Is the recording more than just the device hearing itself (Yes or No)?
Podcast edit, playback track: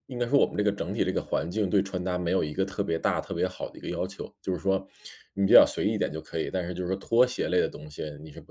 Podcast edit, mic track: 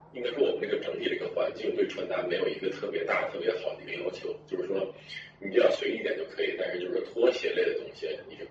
No